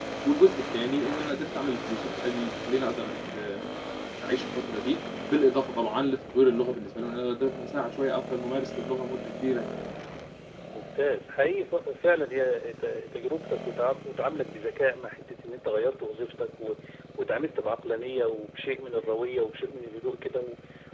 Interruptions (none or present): none